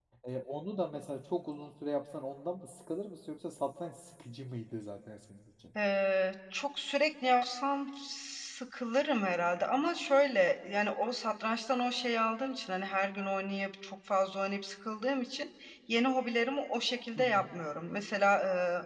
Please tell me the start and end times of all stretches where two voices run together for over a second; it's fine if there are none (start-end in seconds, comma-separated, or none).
none